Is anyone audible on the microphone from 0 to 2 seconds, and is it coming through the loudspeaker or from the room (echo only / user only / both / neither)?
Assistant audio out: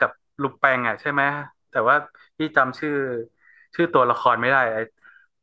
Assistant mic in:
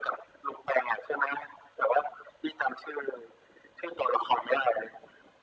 echo only